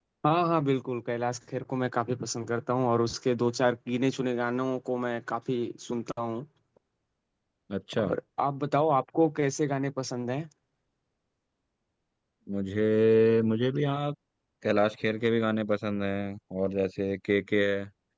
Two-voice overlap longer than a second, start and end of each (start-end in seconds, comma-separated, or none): none